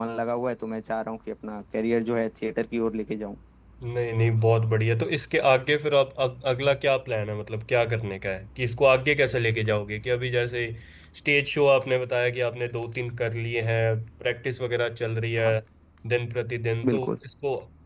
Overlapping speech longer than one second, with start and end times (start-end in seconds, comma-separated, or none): none